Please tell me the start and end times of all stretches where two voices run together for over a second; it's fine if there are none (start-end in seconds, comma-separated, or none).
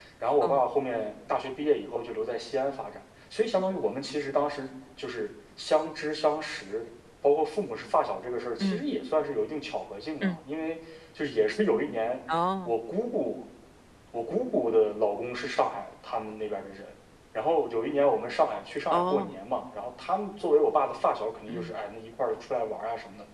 none